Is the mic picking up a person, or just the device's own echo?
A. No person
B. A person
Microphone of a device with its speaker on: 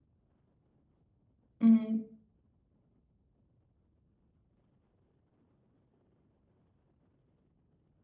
B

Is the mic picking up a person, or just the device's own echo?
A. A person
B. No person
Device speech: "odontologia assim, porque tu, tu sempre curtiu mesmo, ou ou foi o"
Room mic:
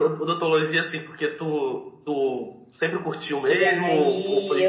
A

